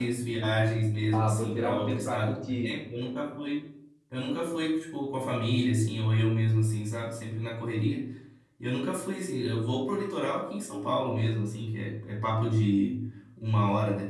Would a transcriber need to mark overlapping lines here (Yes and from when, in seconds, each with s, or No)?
Yes, from 1.1 s